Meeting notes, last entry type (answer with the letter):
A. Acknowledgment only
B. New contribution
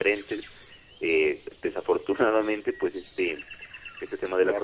A